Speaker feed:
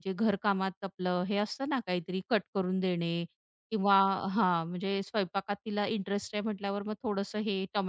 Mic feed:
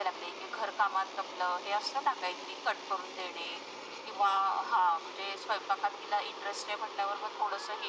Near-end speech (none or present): none